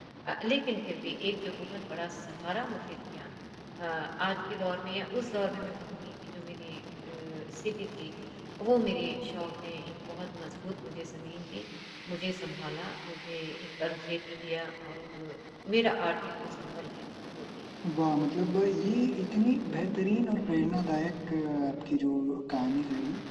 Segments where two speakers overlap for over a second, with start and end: none

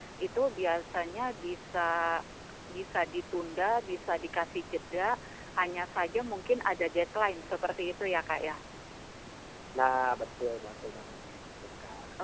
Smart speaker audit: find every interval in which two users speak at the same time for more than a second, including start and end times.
none

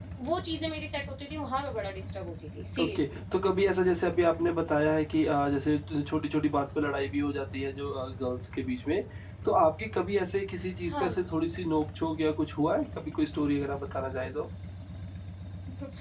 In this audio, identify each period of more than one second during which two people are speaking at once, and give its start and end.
none

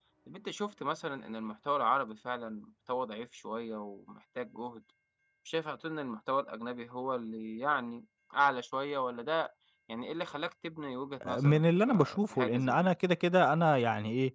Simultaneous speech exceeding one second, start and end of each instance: 11.3-13.0

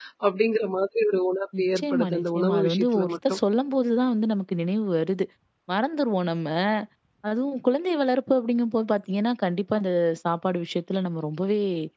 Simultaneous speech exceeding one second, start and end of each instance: 1.6-3.4

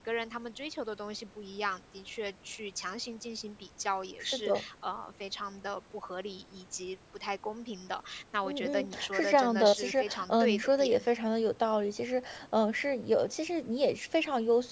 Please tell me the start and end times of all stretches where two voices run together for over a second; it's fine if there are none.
8.4-11.0

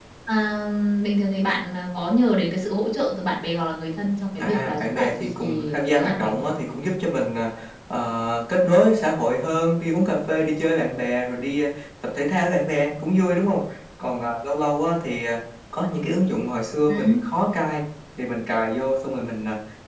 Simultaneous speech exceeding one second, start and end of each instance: 4.4-6.5

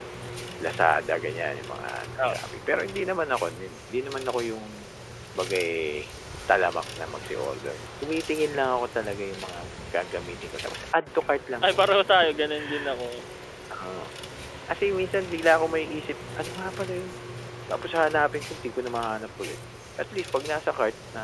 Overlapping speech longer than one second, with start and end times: none

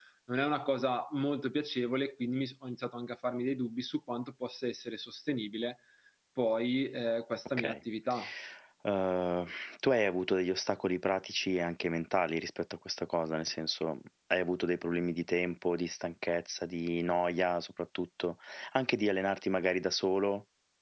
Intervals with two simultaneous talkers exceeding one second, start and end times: none

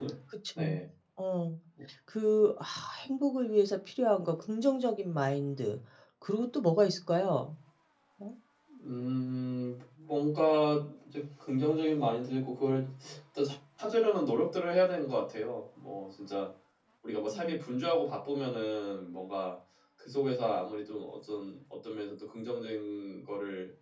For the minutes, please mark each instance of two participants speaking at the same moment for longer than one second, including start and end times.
none

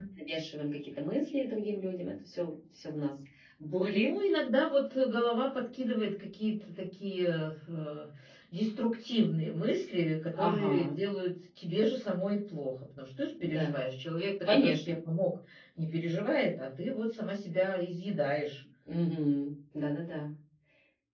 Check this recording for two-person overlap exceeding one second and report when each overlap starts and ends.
none

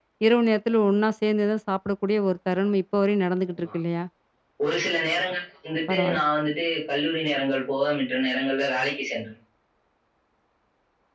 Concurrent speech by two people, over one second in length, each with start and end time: none

